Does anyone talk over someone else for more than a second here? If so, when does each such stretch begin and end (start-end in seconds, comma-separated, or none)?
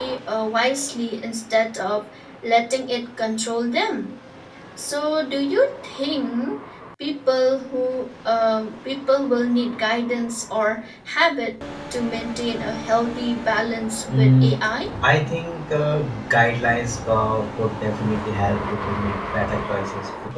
none